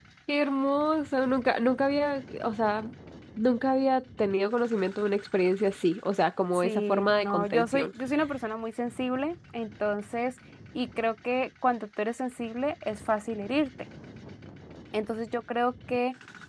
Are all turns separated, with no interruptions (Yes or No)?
No